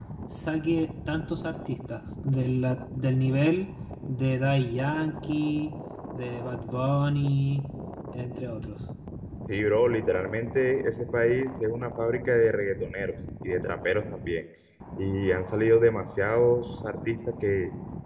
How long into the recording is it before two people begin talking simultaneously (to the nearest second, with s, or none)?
none